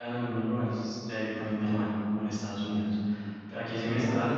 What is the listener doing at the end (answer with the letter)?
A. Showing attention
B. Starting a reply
B